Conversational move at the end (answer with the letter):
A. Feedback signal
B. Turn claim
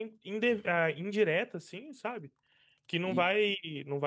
A